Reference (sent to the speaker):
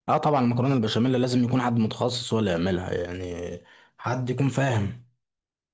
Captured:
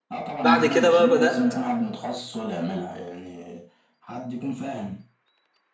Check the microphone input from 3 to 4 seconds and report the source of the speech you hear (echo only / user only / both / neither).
echo only